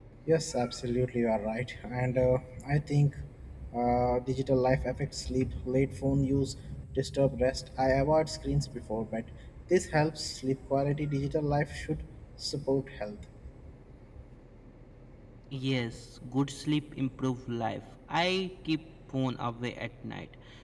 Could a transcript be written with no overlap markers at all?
Yes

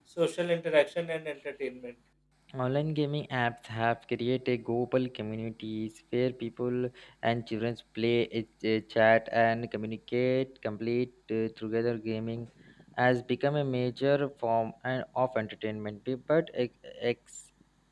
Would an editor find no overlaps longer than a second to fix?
Yes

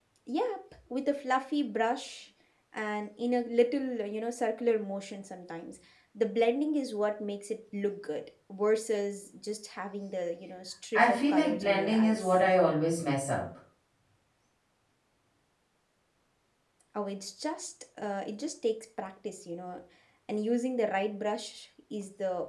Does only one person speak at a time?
No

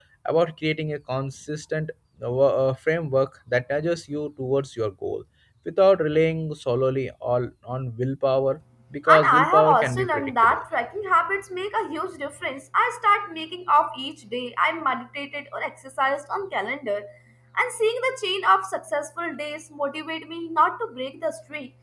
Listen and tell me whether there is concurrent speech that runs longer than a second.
Yes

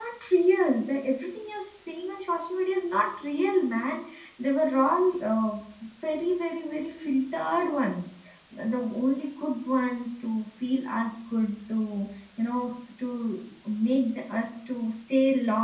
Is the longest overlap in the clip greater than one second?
No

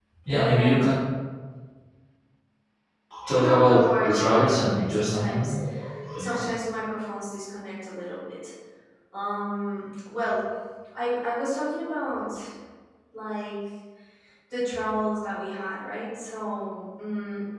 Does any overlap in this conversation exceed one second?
Yes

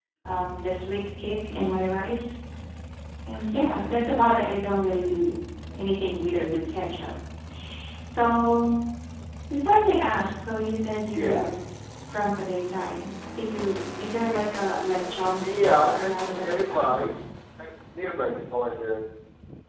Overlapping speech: Yes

